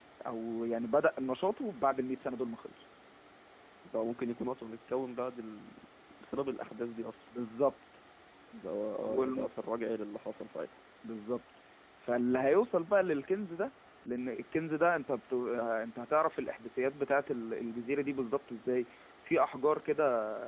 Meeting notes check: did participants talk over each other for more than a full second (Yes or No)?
No